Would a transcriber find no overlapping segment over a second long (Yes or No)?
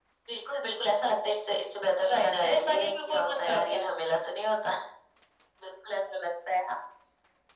No